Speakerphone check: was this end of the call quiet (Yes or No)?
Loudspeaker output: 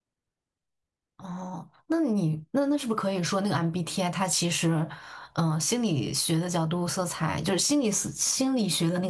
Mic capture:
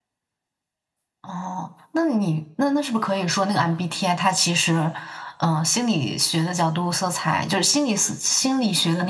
Yes